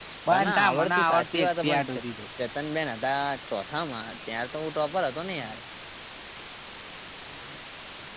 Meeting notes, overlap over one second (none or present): present